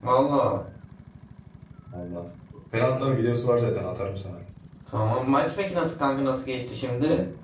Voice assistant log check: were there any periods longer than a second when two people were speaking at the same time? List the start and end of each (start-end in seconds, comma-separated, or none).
none